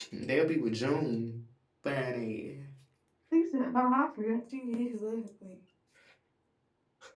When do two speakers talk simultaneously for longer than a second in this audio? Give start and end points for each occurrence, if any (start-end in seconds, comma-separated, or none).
none